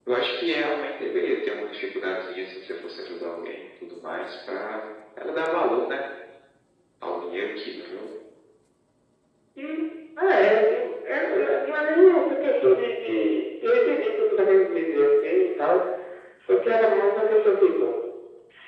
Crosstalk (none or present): none